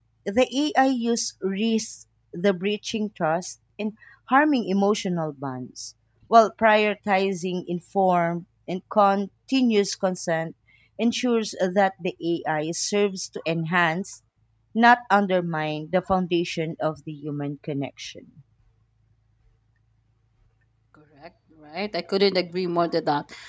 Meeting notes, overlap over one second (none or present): none